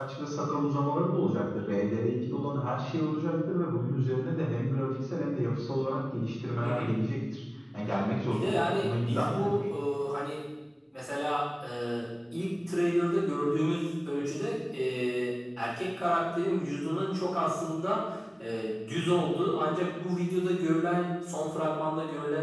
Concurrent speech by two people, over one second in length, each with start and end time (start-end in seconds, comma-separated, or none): 8.3-9.7